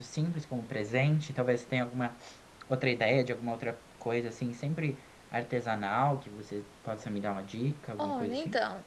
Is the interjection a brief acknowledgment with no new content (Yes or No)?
No